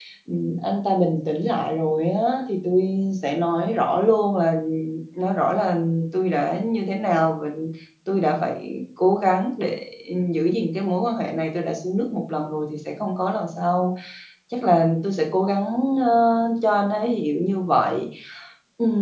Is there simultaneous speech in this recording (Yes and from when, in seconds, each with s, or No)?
No